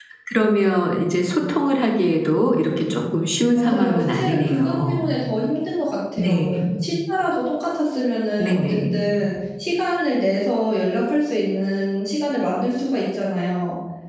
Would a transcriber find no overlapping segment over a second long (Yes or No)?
No